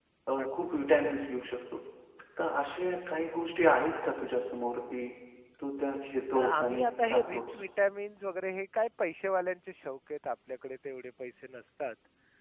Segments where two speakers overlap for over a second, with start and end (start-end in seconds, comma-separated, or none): 6.3-7.6